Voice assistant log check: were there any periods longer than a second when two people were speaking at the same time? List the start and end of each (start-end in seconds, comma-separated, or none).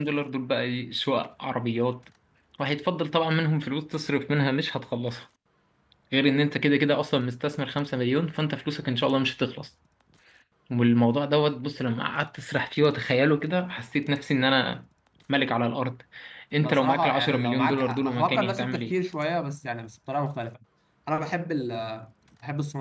16.7-18.9